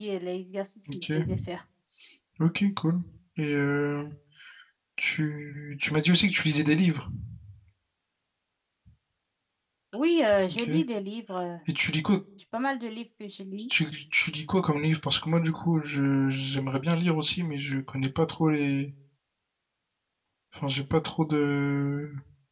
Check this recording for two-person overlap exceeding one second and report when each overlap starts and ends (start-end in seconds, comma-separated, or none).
none